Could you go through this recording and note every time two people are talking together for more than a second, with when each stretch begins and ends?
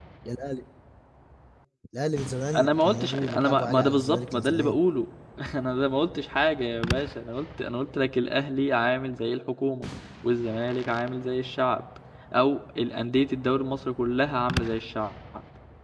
2.6-4.8

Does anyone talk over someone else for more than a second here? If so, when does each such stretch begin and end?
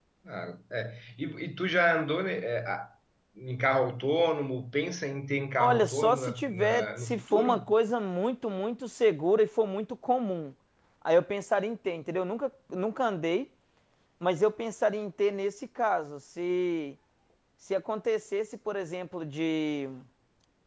5.6-7.7

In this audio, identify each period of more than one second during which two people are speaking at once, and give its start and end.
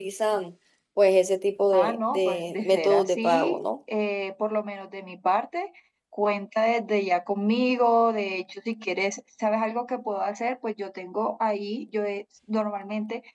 1.7-3.6

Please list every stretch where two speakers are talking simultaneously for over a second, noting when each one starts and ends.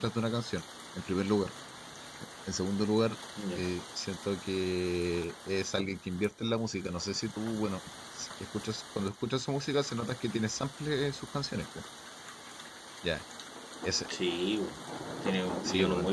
none

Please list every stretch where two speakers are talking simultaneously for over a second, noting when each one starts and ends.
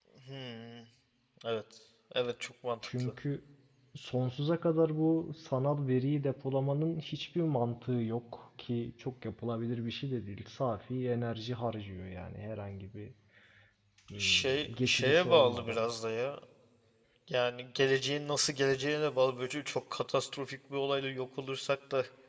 14.2-15.8

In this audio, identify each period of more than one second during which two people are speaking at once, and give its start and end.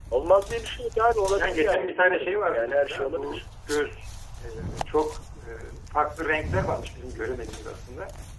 1.4-3.4

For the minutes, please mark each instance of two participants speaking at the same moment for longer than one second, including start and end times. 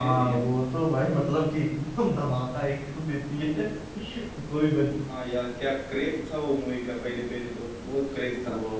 none

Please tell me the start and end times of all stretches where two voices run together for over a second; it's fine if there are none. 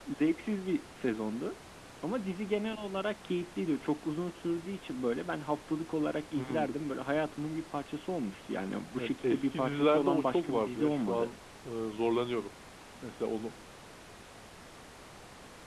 9.0-11.3

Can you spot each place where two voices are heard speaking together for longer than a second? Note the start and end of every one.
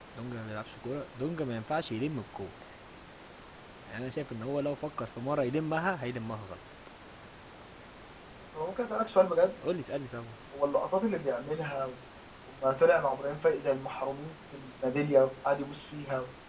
none

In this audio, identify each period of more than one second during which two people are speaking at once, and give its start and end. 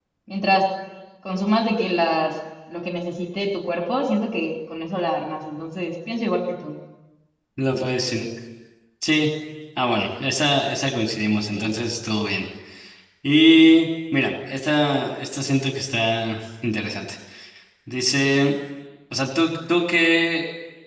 none

